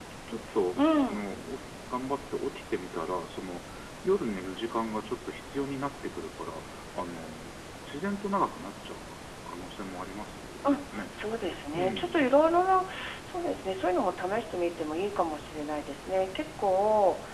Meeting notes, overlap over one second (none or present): none